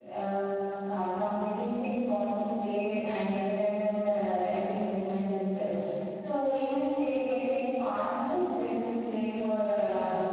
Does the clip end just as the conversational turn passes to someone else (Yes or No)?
Yes